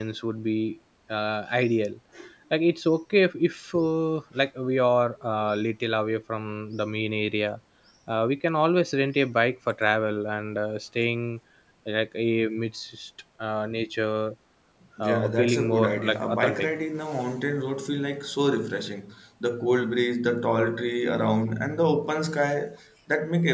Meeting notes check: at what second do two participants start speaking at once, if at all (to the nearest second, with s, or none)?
15 s